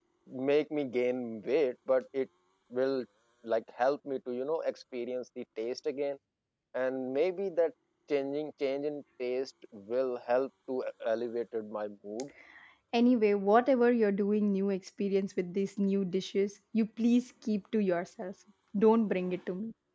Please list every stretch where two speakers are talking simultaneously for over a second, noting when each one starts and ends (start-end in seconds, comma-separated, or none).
none